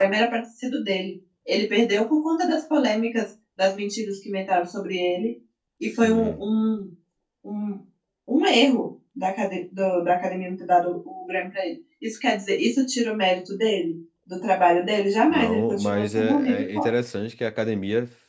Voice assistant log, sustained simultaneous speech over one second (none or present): present